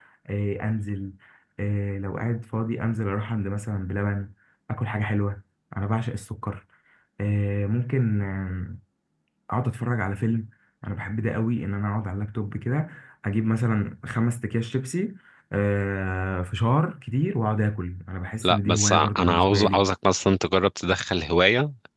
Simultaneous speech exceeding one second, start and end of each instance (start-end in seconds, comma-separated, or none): 18.4-19.8